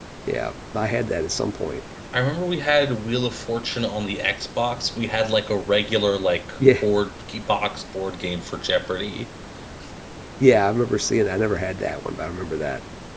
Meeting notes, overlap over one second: none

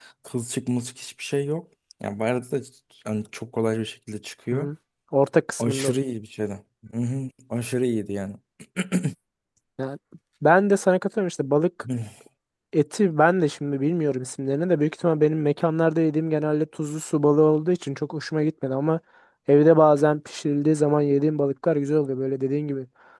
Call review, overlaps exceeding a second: none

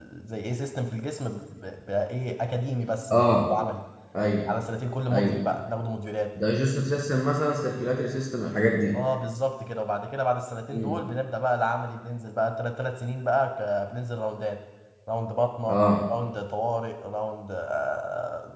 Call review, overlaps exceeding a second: none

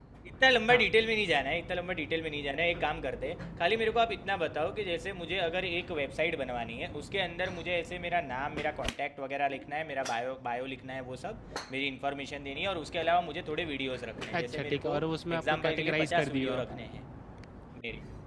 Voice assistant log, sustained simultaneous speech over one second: present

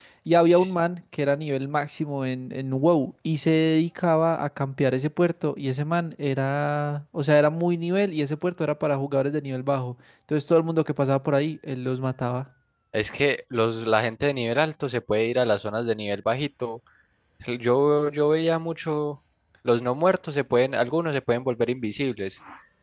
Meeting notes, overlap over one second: none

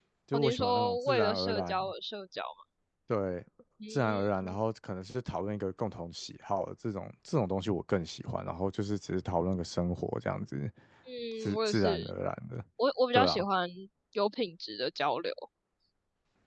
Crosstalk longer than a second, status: present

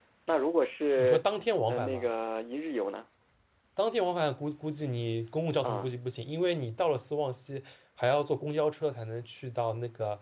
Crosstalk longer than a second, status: none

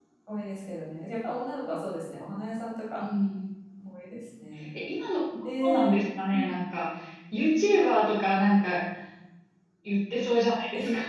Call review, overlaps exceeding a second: none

